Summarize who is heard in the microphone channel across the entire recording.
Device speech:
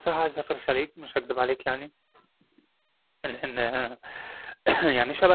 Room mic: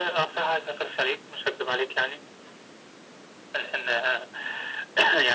echo only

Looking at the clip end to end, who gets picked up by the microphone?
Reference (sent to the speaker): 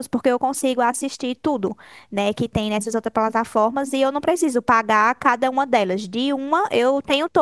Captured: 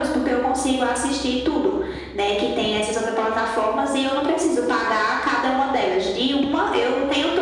echo only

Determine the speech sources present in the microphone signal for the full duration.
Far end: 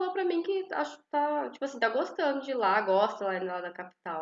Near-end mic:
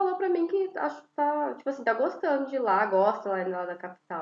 echo only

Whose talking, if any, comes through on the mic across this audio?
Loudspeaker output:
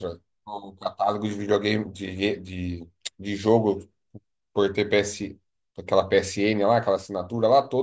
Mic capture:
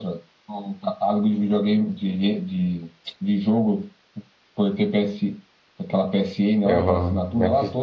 both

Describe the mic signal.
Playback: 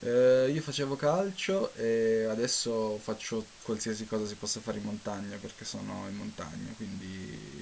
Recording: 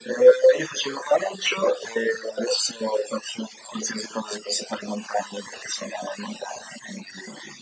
echo only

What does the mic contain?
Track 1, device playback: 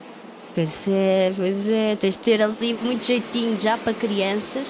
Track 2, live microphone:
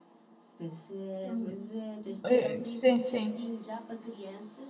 both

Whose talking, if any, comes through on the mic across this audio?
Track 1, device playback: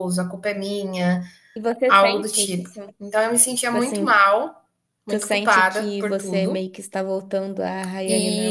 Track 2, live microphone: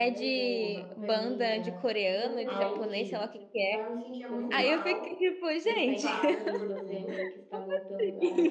both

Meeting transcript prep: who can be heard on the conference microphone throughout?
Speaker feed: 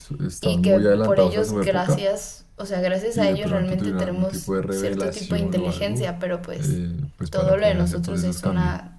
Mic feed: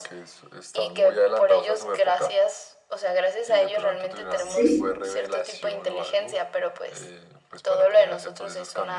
both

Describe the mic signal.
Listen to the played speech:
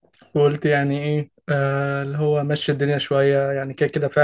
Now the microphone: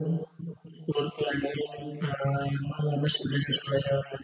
echo only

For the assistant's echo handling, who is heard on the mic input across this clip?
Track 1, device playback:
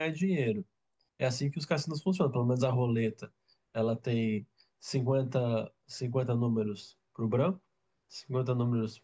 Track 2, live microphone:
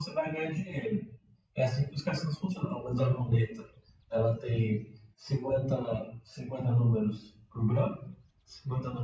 echo only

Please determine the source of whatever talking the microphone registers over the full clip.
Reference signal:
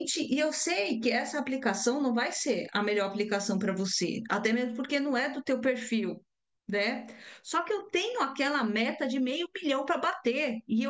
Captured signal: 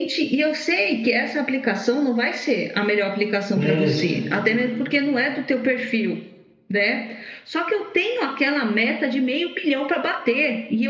both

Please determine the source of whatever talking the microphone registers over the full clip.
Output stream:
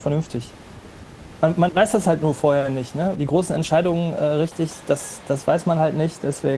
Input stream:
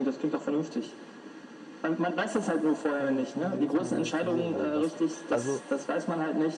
both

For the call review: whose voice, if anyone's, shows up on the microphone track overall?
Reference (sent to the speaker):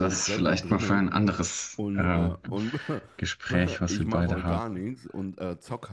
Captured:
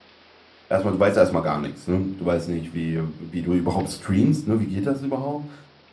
user only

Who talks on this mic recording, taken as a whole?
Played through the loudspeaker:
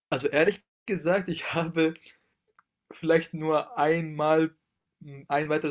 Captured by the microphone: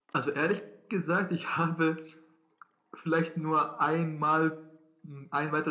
echo only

